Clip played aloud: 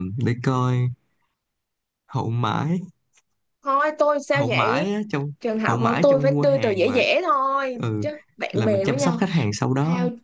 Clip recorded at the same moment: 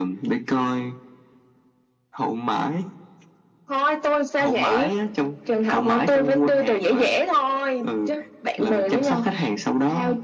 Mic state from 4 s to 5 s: echo only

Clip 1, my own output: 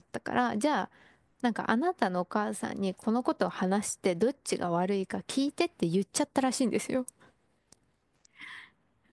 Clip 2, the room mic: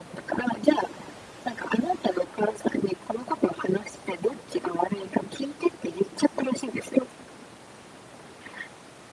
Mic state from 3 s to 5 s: echo only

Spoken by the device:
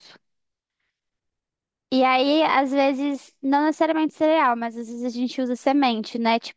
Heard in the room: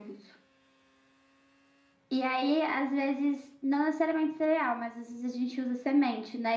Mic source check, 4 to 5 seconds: echo only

